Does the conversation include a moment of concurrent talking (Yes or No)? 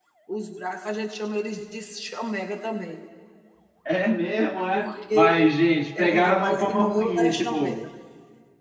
Yes